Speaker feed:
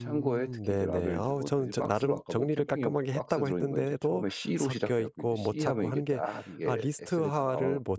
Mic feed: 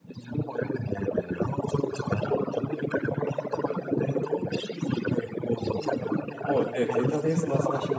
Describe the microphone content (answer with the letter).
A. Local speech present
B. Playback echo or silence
A